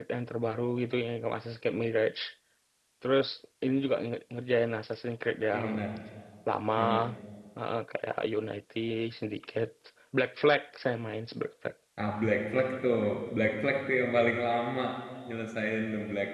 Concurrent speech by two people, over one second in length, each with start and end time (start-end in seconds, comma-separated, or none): none